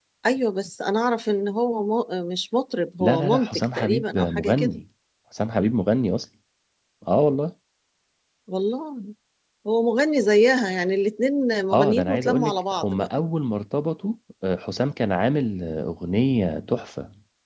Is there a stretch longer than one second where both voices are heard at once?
Yes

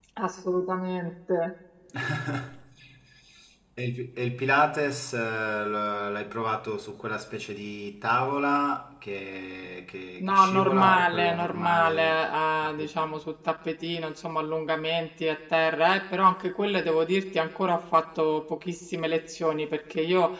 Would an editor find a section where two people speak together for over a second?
Yes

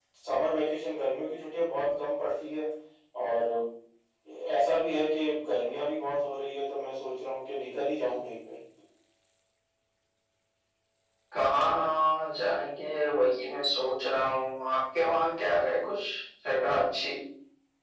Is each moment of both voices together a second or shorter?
Yes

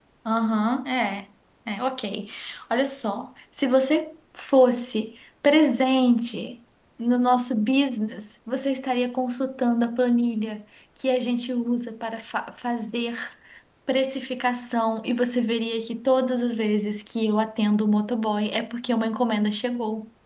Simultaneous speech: No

